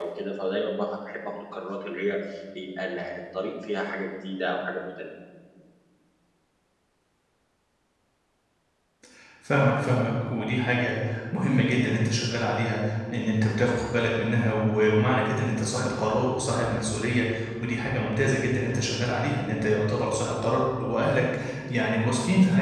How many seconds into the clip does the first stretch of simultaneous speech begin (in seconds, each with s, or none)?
none